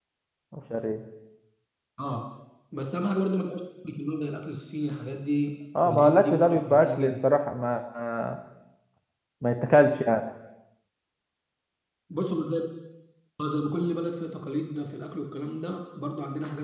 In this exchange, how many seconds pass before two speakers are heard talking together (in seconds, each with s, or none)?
5.8 s